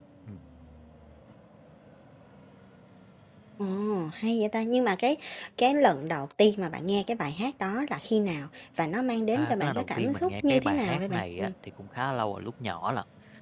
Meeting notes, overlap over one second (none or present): present